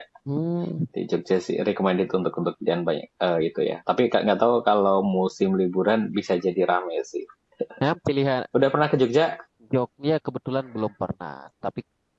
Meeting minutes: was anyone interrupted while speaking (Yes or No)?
No